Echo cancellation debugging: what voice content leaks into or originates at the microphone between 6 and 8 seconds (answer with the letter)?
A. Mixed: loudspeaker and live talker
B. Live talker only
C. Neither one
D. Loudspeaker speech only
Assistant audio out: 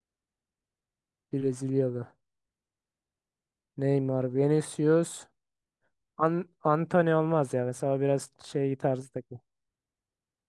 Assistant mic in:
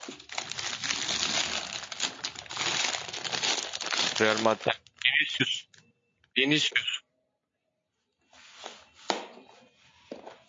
B